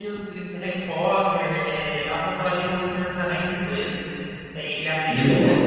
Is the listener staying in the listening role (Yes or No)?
Yes